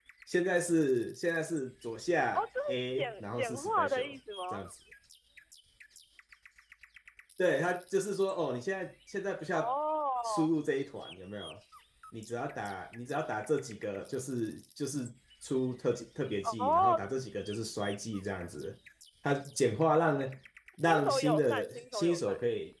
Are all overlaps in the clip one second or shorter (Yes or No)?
No